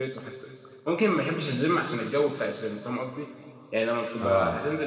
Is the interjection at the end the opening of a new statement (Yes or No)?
No